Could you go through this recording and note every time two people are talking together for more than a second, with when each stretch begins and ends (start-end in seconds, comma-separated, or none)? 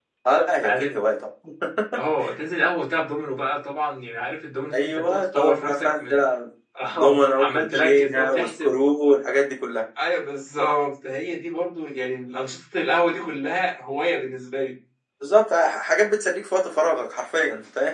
4.7-6.2, 6.9-8.8